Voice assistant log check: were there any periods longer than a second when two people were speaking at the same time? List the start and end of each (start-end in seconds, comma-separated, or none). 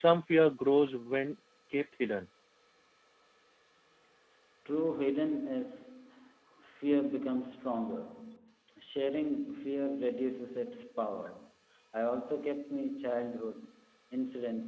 none